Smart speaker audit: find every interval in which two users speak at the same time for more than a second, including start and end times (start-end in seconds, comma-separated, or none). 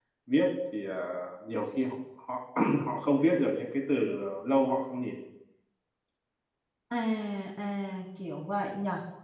none